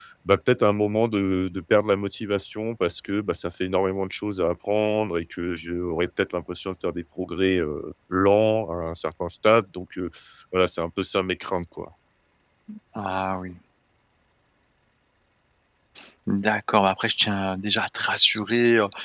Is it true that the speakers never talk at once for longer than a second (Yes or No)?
Yes